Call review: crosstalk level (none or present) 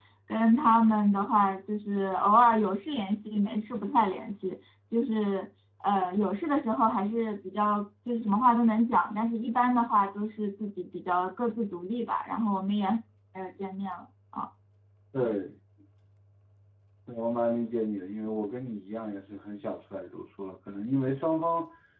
none